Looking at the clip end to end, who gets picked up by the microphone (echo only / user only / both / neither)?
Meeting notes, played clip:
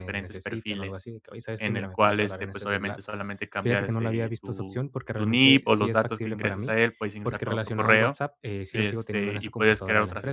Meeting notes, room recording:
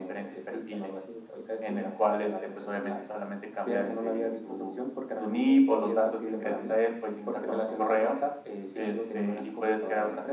echo only